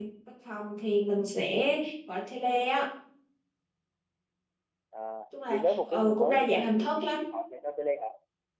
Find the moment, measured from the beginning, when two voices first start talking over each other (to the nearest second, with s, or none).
5 s